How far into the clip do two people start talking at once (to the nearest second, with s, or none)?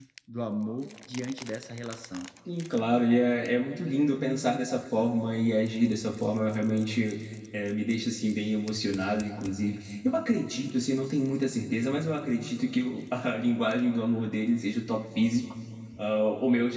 none